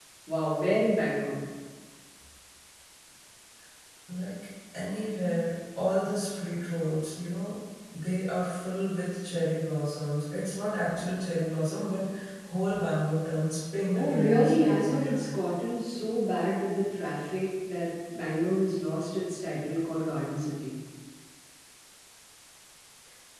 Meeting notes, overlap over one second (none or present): present